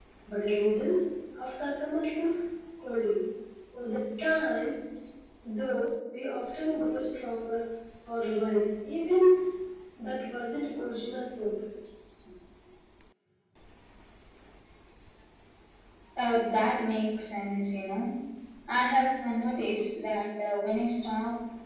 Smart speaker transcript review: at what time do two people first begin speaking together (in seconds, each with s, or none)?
none